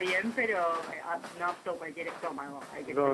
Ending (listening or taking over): taking over